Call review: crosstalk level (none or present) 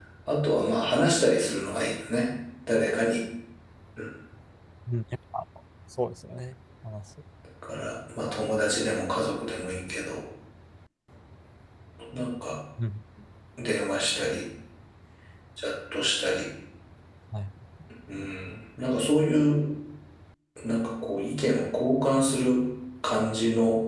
none